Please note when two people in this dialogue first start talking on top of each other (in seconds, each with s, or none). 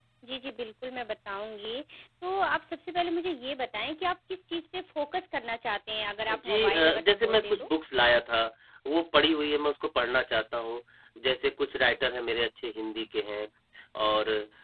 6.3 s